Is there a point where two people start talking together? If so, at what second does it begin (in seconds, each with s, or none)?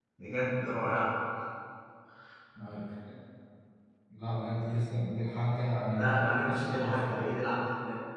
5.9 s